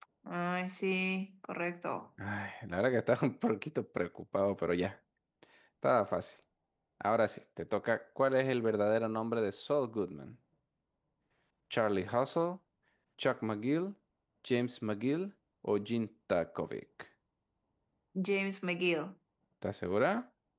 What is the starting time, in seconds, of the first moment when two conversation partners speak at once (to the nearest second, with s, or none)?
none